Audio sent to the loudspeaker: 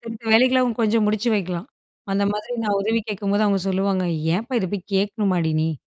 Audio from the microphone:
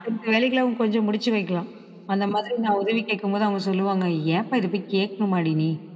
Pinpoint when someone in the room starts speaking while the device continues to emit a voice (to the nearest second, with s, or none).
none